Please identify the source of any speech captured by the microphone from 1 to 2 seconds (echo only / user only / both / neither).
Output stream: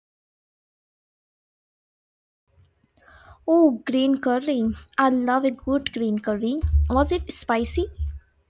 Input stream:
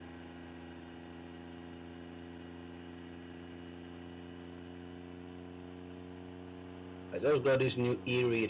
neither